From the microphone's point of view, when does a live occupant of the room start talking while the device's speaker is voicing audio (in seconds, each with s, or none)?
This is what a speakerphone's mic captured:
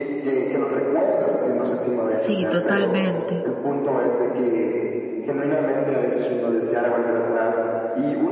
2.1 s